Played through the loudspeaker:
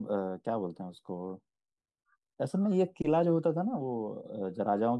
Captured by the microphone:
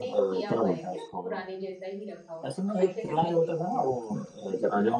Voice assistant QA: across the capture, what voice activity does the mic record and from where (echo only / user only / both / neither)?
both